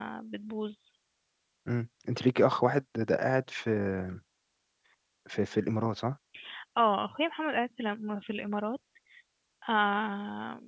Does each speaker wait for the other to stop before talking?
Yes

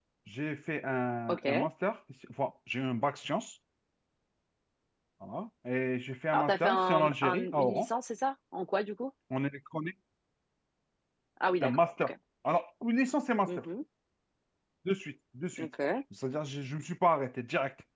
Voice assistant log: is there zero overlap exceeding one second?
No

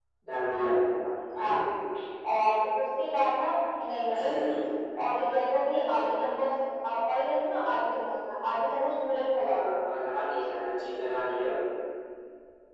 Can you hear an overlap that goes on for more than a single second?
No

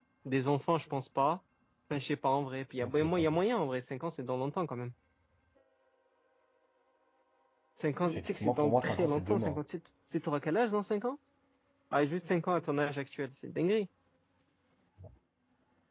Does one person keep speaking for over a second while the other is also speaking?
Yes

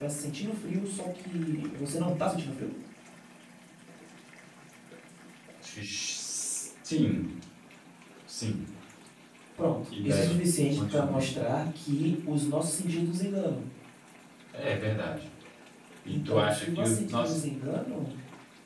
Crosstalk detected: Yes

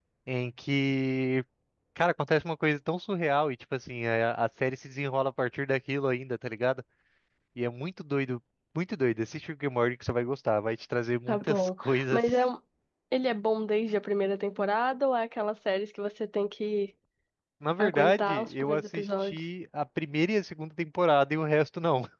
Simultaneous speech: Yes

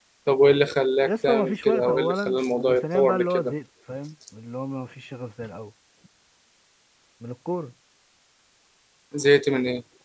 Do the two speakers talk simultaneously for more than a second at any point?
Yes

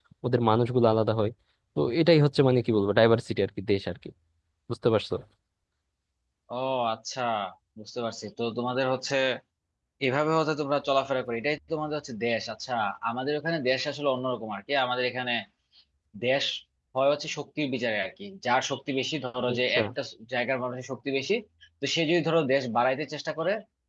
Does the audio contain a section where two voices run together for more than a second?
No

